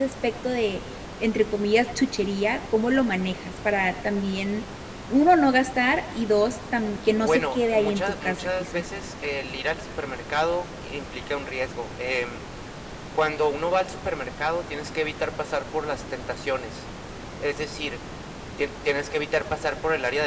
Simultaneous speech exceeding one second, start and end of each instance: 7.2-8.8

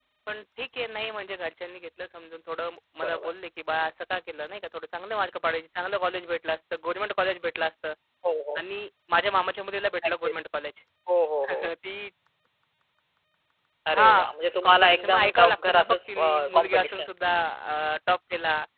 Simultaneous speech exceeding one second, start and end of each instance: 14.6-17.1

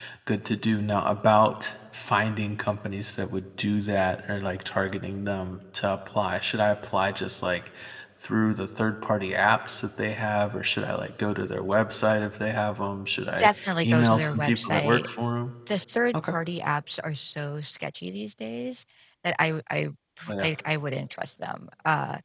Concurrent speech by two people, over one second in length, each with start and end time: 13.4-15.1

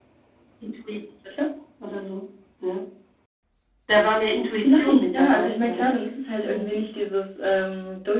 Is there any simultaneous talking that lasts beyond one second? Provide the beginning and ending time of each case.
4.6-5.9

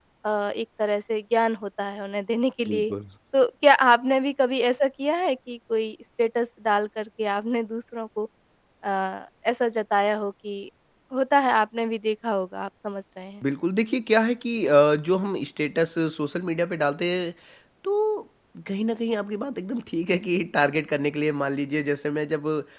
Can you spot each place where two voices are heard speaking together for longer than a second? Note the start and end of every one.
none

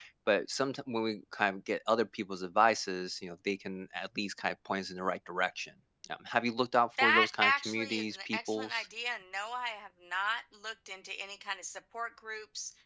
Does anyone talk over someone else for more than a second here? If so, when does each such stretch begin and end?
7.0-8.8

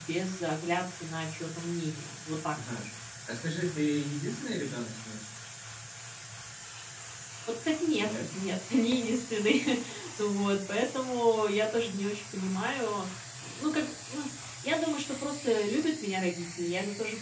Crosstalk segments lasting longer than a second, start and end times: none

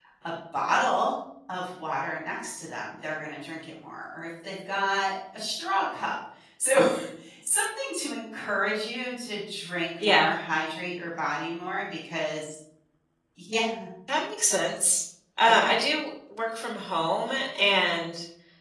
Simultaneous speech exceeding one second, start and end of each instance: none

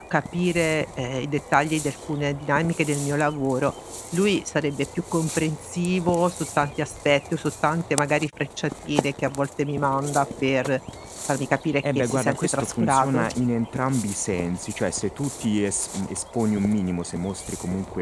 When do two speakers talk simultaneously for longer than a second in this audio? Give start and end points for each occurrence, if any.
11.9-13.3

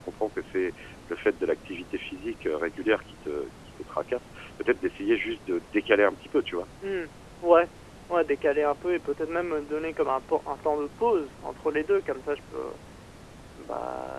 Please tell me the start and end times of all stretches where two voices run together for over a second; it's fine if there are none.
none

